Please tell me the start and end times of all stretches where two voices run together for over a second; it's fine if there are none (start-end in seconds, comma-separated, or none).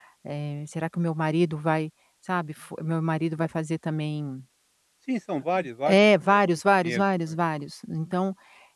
5.9-7.3